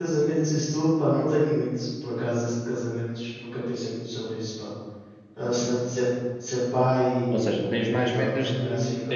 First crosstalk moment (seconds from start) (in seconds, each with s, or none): 7.3 s